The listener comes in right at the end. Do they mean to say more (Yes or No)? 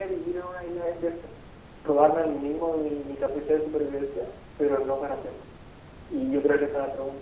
No